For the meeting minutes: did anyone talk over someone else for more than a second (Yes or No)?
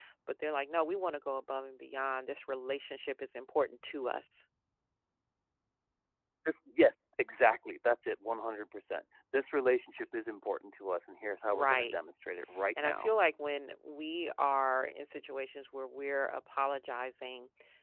No